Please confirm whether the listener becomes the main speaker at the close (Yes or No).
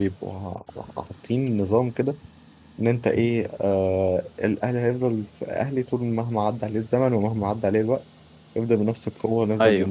No